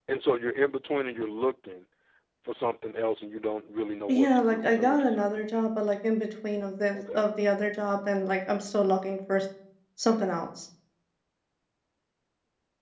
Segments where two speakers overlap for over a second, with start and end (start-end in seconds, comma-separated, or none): 4.1-5.4